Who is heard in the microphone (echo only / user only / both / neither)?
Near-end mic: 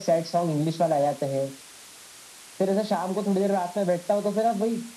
echo only